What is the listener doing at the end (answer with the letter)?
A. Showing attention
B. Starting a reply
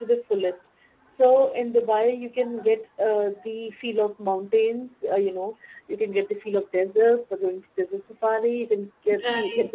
A